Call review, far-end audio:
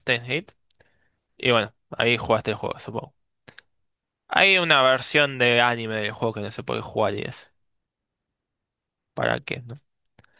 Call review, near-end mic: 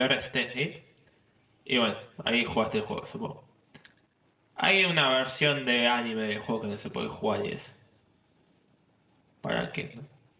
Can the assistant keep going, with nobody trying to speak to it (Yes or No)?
Yes